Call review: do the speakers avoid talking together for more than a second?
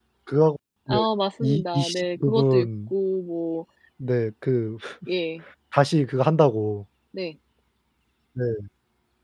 No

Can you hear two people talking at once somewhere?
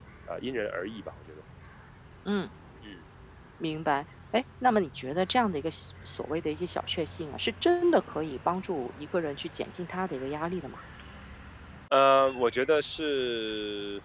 No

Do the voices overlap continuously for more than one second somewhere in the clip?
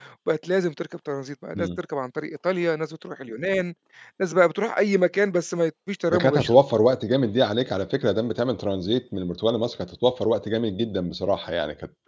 No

